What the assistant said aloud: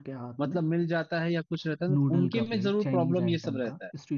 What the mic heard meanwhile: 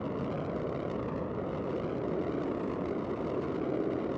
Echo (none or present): none